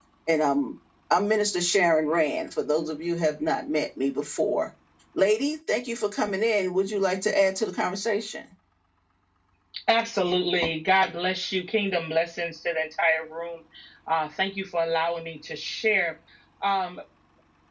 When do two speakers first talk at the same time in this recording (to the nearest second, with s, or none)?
none